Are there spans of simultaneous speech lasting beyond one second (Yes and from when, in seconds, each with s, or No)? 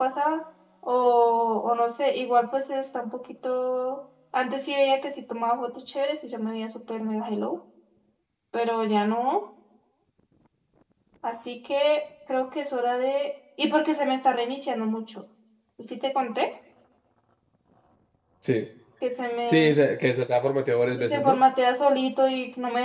No